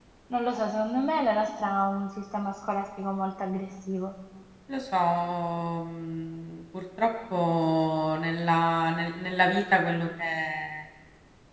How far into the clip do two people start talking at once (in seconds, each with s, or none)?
none